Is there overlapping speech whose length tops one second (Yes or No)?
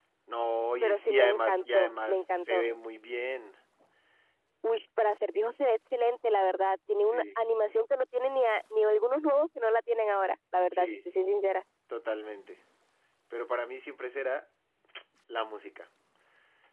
Yes